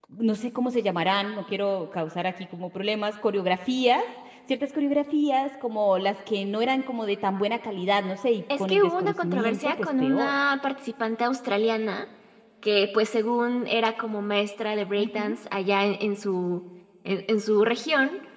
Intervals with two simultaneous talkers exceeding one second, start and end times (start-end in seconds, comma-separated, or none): 8.6-10.4